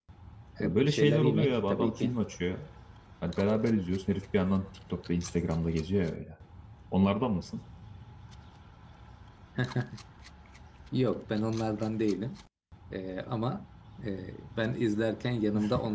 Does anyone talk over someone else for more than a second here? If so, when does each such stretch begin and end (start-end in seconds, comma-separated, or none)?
0.6-2.2